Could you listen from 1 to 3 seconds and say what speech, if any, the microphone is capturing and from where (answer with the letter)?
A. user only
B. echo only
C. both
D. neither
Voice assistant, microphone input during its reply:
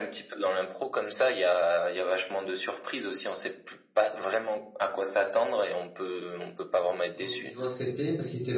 B